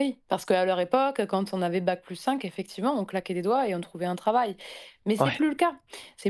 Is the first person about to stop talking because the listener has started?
No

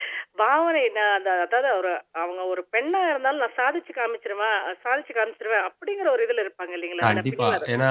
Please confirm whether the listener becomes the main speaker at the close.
Yes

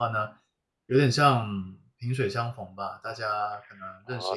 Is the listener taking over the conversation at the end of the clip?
Yes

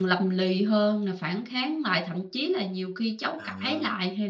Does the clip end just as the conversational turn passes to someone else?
No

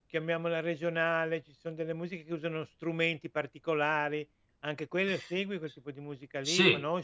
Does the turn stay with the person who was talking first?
No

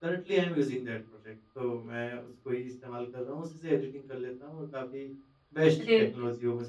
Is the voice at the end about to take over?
Yes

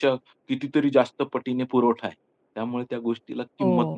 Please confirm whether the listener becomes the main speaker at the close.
Yes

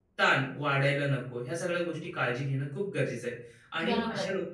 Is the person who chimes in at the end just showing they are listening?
Yes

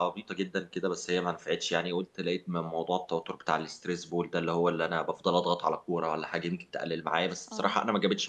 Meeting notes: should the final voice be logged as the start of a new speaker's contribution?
No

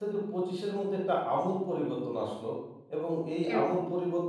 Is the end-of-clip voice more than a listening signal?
No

